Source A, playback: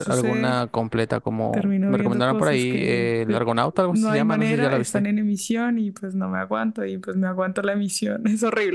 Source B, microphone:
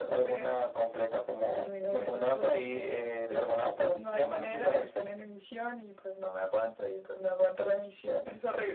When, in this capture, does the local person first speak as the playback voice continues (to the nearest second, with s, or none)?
none